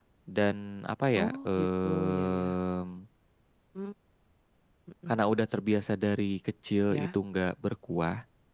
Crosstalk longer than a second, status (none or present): present